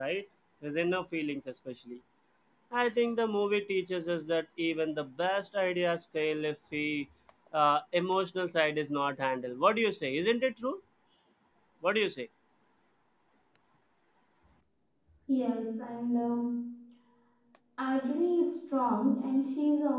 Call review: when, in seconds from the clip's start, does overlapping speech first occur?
none

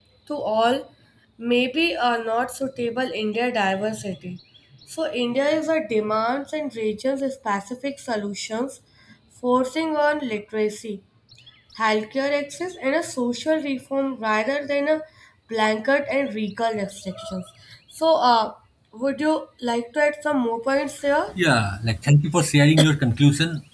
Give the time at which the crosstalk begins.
none

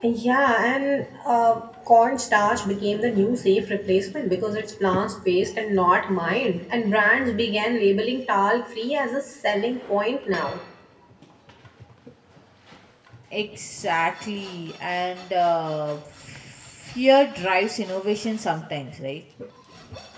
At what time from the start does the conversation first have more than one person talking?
none

